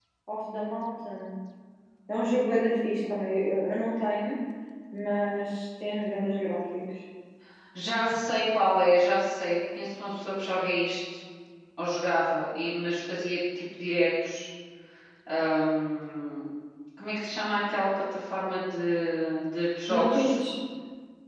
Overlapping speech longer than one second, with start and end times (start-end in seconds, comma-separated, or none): none